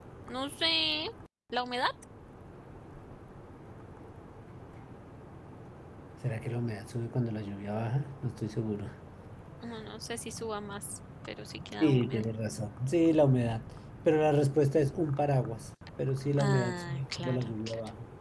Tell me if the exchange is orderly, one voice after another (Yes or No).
No